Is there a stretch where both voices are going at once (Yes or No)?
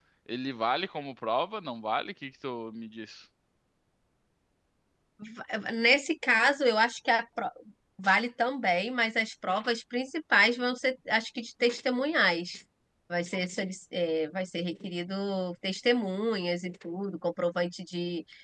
No